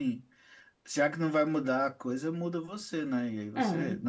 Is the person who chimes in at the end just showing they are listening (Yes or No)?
Yes